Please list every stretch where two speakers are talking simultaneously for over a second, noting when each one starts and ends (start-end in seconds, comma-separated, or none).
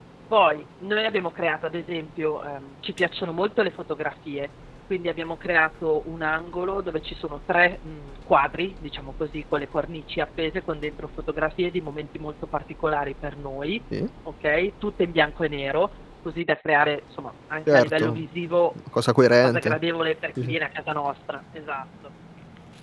none